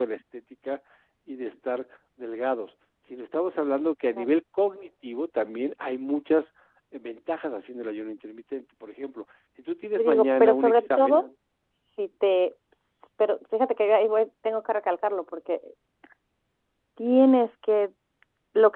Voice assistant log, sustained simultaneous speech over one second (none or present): present